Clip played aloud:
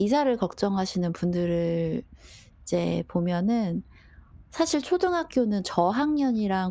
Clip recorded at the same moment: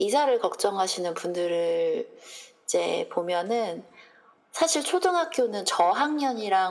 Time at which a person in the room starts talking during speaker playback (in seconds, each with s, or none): none